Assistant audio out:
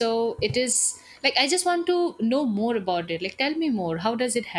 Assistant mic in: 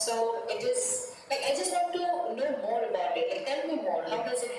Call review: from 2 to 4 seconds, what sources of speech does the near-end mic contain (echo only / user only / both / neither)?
echo only